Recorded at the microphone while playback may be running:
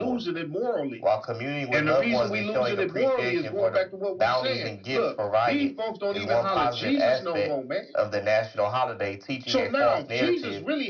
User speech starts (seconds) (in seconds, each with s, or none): none